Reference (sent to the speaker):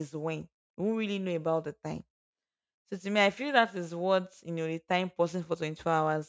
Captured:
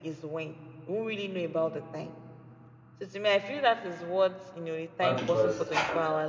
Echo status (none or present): present